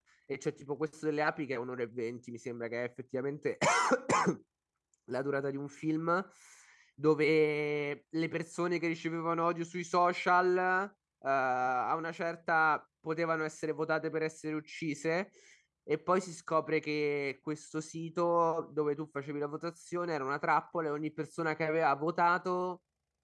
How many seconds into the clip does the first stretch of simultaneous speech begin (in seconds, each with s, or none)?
none